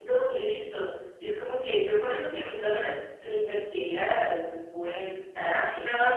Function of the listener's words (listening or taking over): taking over